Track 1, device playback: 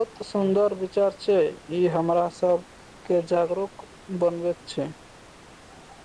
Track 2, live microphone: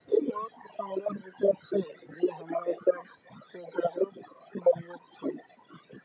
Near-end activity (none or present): none